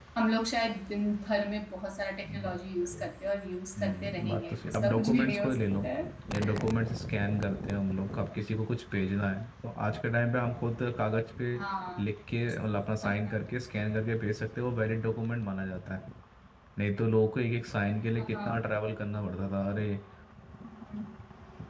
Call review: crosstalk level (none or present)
present